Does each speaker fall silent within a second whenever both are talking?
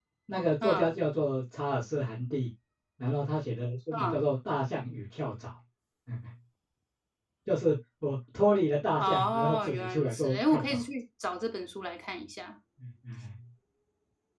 No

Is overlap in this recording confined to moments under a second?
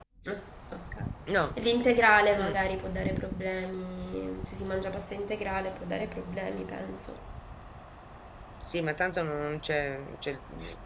Yes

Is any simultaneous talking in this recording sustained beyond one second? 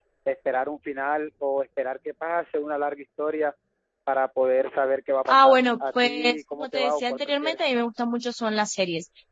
Yes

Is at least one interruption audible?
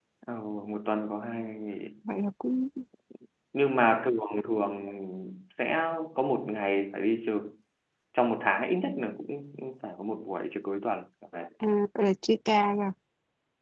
No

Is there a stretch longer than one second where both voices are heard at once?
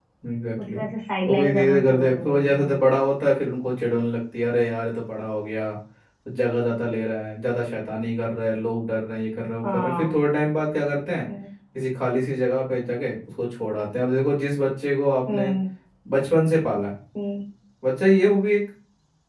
Yes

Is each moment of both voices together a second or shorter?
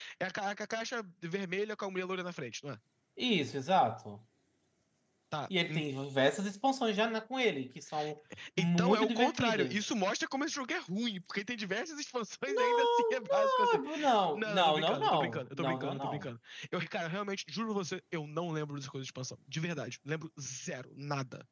No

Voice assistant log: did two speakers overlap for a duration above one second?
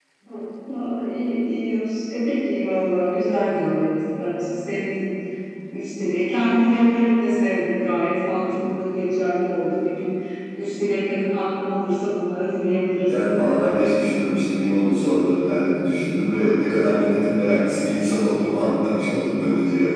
No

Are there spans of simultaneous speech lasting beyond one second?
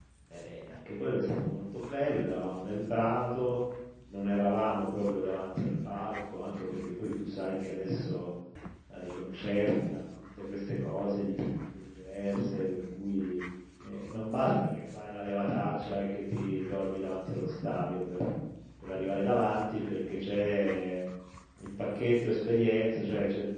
No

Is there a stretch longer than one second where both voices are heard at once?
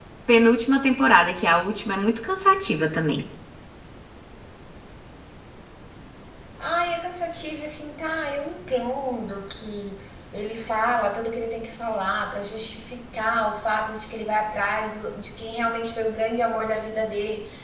No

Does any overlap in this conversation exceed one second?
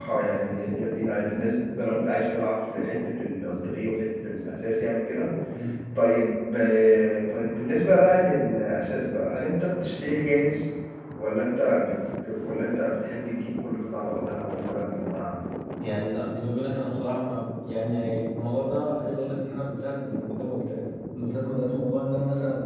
No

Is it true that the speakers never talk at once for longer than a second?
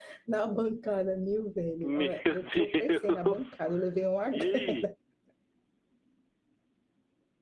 No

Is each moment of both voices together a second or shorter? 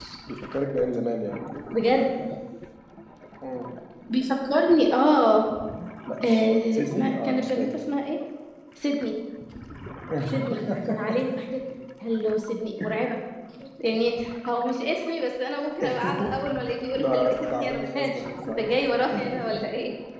No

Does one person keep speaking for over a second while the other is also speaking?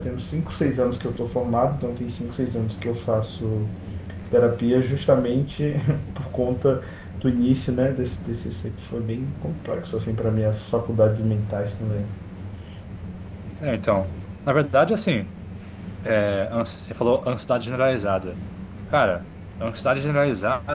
No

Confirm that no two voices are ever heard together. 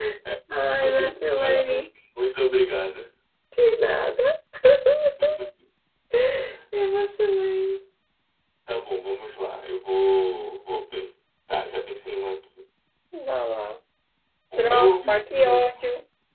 No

